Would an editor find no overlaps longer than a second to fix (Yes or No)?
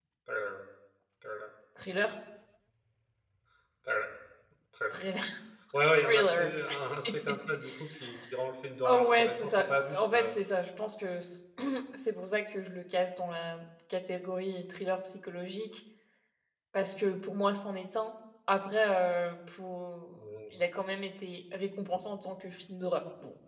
No